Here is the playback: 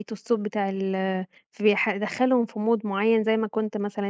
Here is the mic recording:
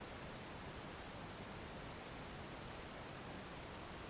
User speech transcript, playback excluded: none

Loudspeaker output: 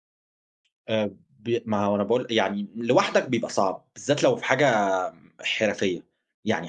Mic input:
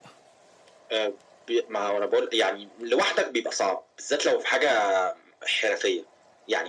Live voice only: none

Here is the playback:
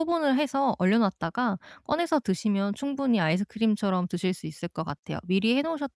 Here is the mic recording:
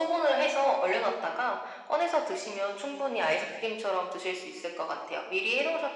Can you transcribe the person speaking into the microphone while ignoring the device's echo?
none

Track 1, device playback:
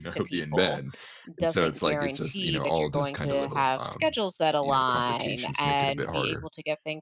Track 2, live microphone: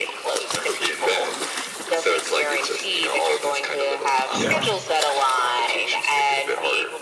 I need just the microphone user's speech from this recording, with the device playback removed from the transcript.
yeah.

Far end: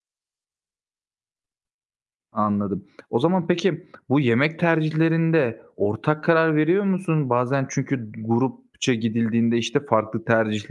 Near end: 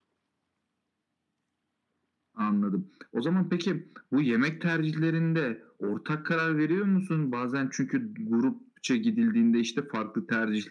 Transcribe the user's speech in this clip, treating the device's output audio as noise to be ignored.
none

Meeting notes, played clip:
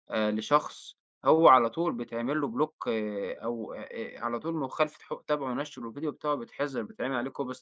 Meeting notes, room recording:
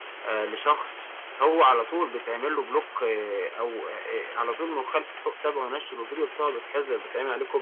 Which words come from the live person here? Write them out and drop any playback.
none

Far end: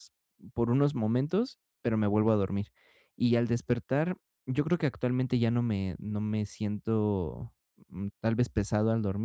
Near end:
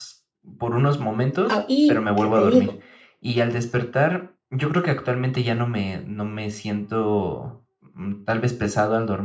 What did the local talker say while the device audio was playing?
Ah, y, ¿qué te digo?

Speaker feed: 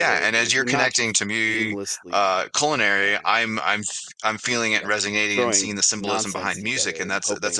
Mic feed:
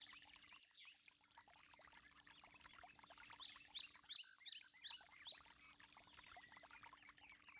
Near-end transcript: none

